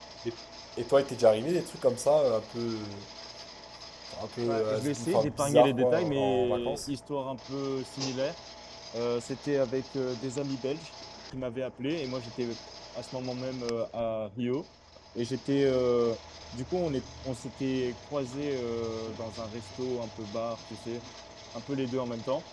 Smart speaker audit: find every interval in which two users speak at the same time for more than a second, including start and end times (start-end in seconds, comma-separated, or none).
4.5-6.9